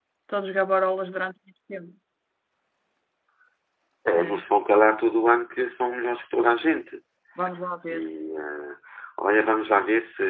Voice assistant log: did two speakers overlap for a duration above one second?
No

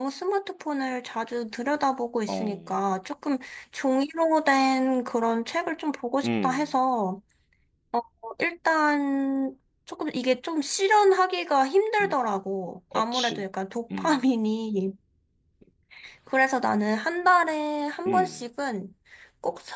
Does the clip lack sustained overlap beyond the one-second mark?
Yes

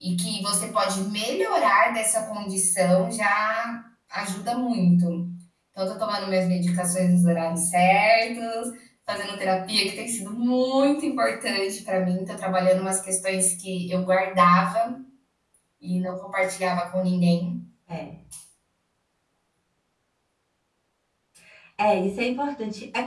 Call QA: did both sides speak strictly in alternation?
Yes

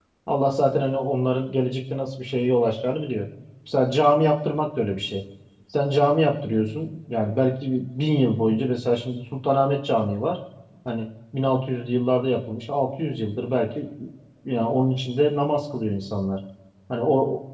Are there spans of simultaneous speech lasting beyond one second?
No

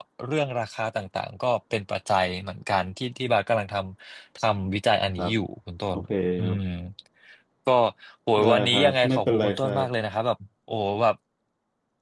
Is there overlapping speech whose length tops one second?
Yes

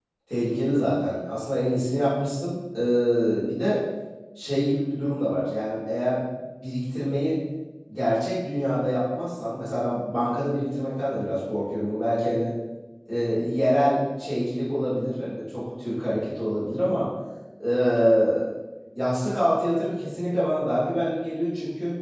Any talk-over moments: No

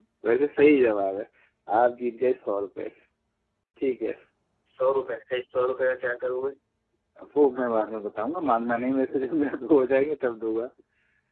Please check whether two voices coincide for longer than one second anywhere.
No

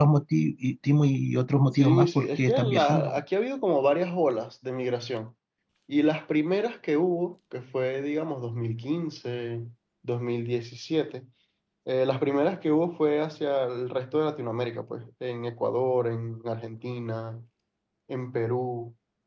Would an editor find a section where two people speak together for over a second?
Yes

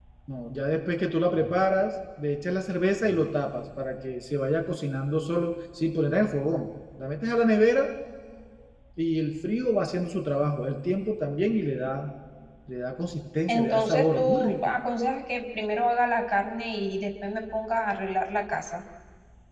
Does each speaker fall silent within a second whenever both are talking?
No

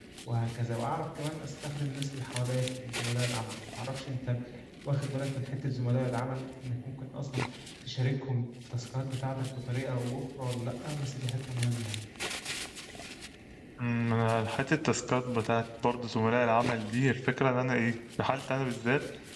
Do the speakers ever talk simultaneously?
No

